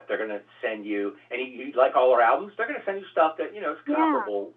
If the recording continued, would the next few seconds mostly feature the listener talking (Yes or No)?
No